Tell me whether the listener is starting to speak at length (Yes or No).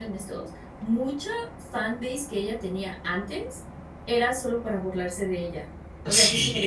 No